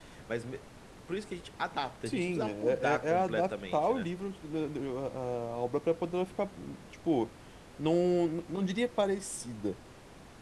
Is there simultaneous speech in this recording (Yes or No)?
Yes